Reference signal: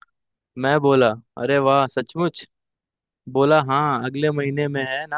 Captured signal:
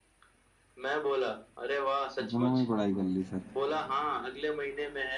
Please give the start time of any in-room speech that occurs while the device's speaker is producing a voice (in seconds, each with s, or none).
2.2 s